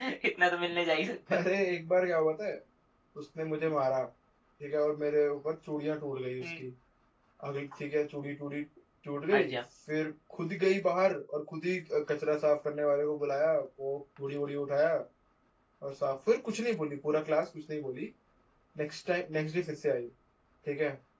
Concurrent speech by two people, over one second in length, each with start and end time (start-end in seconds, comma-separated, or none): none